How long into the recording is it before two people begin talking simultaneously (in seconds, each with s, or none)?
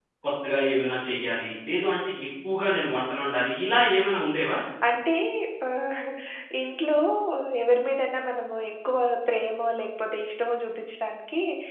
none